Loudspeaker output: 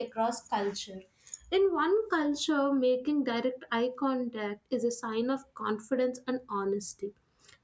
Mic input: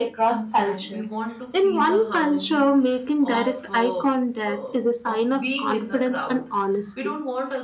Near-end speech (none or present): present